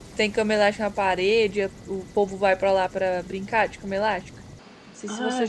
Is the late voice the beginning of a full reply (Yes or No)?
Yes